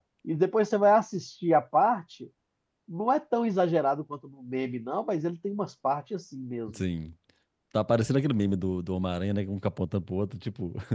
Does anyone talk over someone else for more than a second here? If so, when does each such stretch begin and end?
none

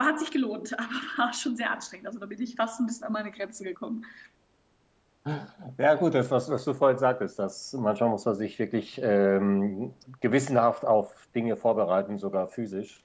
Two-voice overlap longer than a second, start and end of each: none

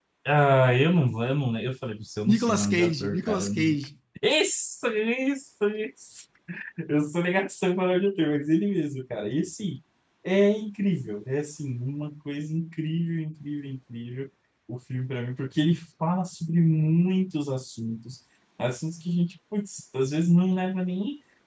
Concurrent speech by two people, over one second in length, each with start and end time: 2.3-3.8

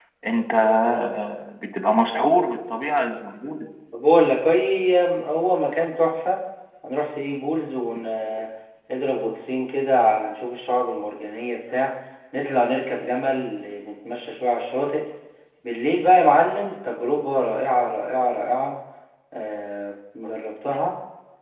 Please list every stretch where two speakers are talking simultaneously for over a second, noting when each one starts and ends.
none

